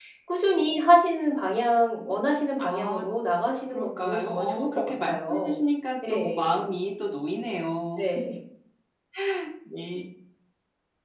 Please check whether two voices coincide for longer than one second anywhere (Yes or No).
Yes